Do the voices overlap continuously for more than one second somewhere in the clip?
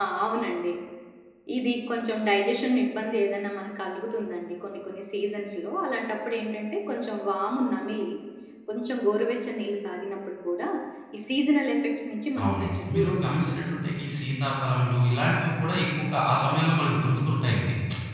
Yes, from 12.4 s

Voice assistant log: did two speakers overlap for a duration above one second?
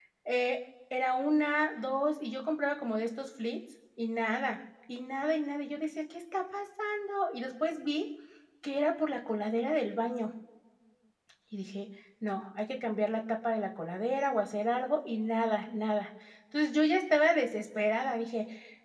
No

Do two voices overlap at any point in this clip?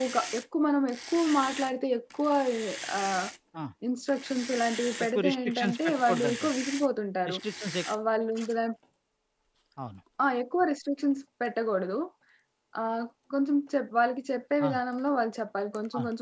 Yes, from 5.2 s

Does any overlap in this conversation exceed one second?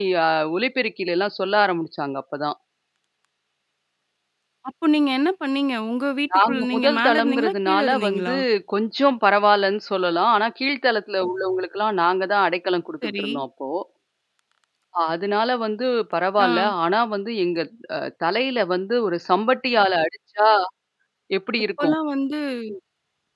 Yes, from 6.5 s

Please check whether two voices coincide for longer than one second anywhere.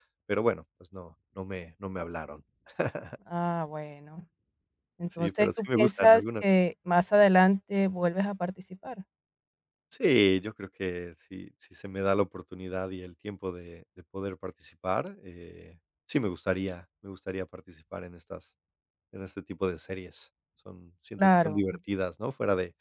Yes, from 5.2 s

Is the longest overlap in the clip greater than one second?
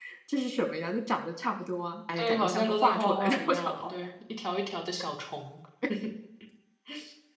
Yes, from 2.2 s

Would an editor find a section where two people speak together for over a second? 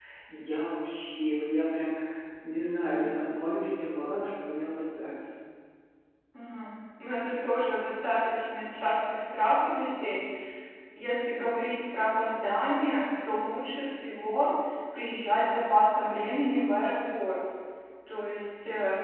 No

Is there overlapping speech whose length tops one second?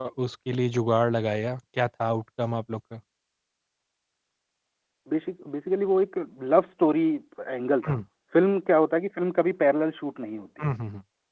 No

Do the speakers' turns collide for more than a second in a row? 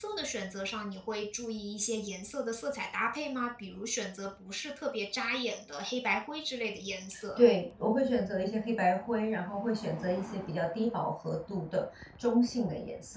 No

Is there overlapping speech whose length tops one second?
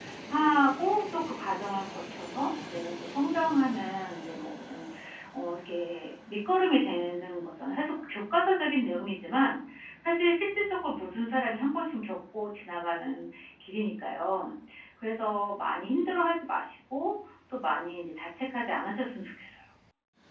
No

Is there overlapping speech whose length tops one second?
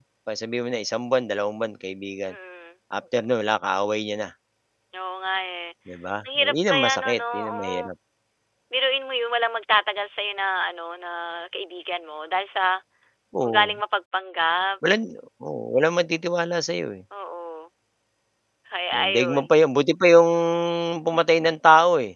Yes, from 6.5 s

